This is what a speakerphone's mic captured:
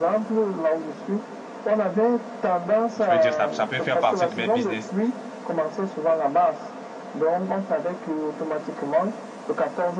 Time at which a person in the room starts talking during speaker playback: 2.9 s

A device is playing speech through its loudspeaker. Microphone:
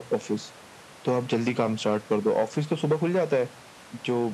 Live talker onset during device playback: none

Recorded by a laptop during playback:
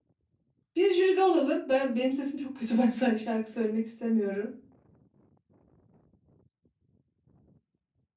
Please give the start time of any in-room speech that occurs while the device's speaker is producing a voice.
0.8 s

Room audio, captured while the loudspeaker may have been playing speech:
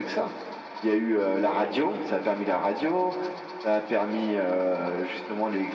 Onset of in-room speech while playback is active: none

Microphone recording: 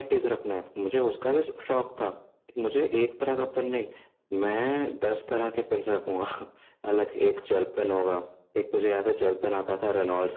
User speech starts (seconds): none

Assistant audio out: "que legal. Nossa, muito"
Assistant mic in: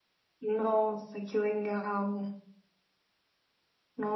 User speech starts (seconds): none

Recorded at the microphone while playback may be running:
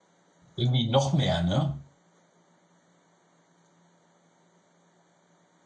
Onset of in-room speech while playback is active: 0.5 s

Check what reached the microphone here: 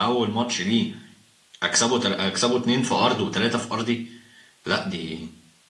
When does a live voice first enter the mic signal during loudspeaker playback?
none

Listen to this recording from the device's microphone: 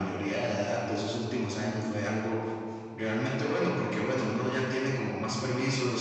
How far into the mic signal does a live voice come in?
none

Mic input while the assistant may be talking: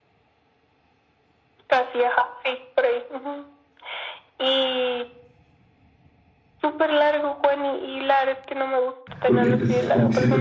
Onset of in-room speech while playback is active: 9.2 s

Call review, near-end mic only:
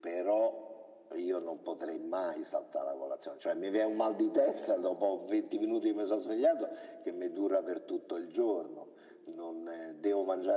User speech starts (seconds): none

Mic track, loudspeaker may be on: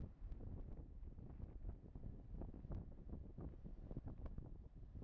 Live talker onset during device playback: none

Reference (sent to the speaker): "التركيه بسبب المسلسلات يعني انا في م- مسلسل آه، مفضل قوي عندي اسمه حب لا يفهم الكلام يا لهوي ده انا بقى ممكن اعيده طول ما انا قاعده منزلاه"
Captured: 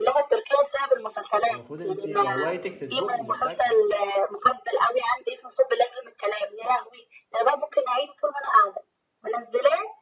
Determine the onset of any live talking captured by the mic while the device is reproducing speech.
1.5 s

